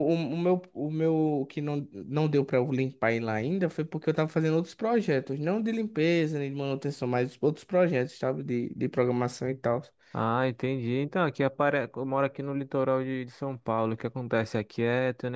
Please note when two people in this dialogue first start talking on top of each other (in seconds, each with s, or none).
none